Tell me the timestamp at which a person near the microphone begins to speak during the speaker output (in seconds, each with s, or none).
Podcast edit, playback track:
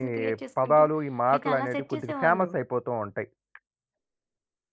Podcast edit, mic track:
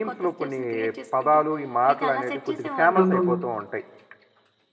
3.0 s